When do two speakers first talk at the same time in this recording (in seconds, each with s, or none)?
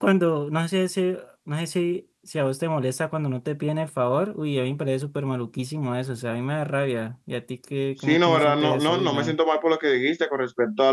8.1 s